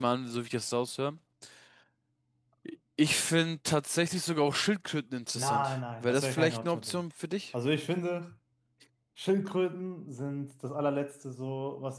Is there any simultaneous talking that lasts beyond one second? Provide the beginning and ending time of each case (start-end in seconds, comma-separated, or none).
5.4-7.0